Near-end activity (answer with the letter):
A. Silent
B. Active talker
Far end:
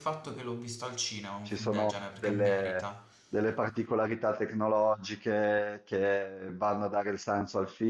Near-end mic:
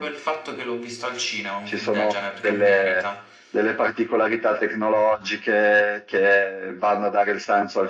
A